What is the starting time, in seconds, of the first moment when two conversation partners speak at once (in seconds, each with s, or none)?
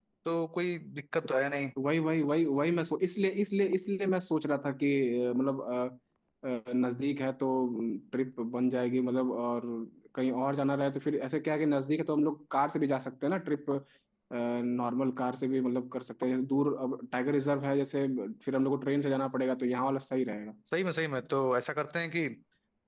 none